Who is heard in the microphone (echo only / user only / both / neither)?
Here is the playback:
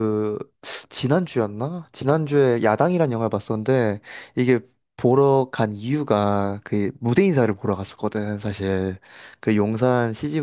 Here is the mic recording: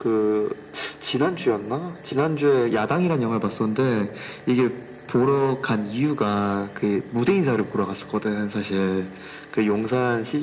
echo only